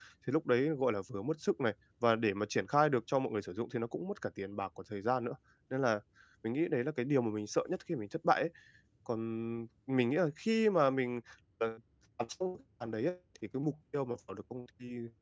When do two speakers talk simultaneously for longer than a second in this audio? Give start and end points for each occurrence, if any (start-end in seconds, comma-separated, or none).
none